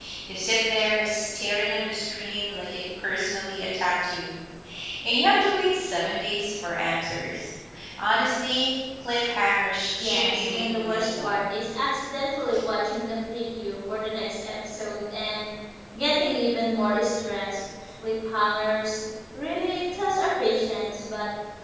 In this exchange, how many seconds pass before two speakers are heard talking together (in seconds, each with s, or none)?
10.0 s